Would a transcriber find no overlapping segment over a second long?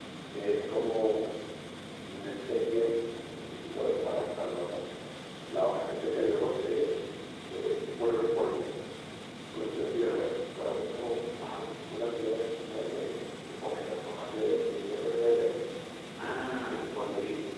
Yes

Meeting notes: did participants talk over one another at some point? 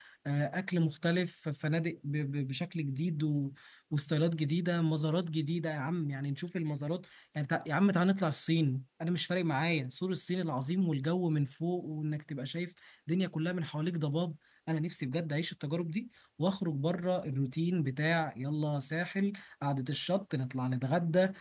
No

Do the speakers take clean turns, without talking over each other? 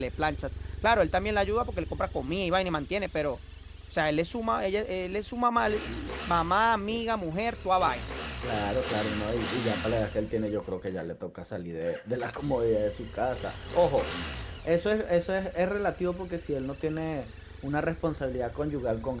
Yes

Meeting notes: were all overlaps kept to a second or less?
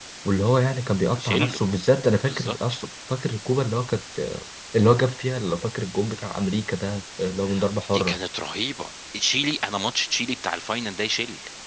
Yes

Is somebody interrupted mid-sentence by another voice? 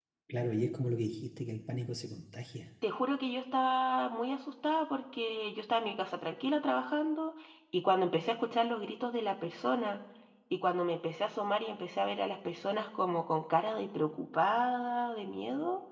No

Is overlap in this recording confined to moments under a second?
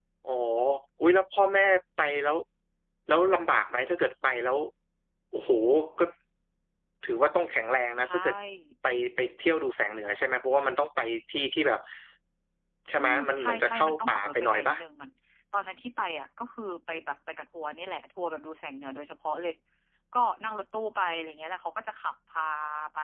No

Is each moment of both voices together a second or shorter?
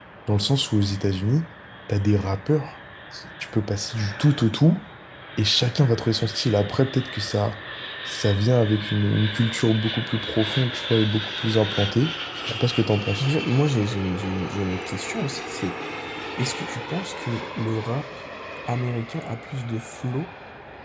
Yes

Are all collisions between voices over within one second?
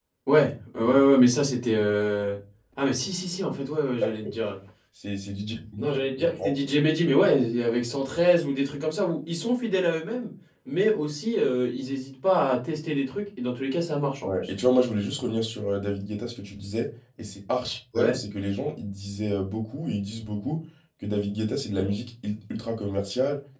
Yes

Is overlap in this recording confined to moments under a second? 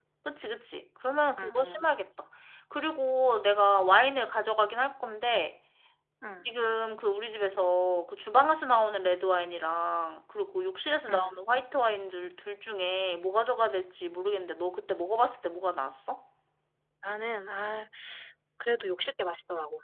Yes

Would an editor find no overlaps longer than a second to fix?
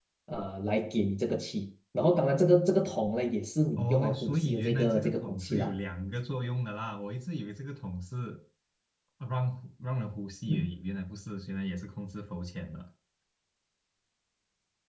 No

